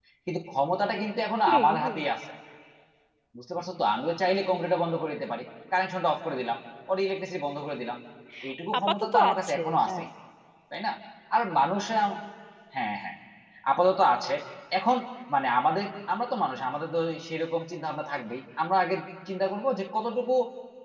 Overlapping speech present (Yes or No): Yes